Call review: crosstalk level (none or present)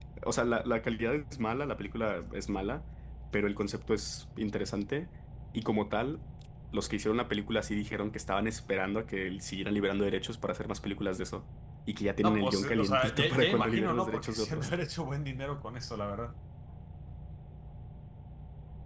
present